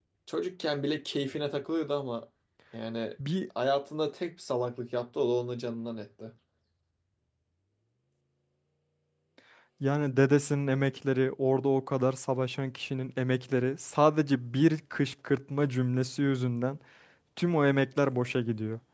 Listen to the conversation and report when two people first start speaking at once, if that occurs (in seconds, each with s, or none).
none